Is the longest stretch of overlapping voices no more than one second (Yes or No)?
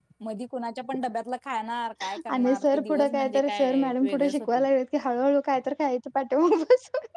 No